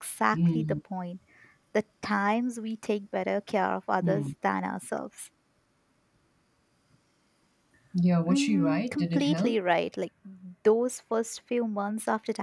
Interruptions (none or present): present